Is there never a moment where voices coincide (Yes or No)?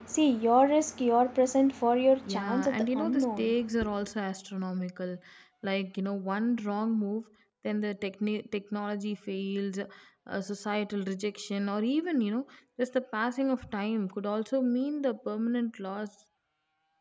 No